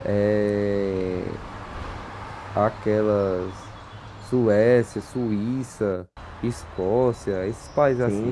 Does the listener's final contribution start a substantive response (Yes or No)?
Yes